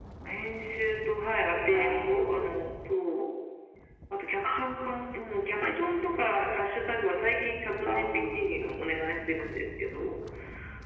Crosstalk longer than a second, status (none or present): none